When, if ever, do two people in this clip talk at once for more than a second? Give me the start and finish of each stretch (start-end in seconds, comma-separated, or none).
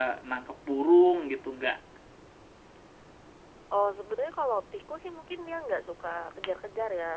none